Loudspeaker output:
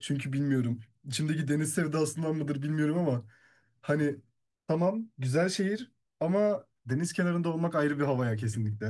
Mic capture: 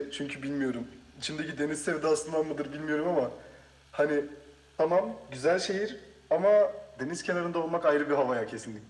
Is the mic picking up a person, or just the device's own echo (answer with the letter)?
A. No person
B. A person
A